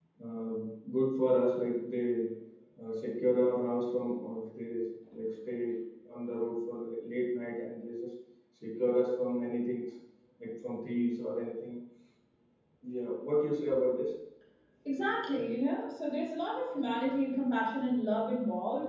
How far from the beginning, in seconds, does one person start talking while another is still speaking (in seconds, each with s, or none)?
none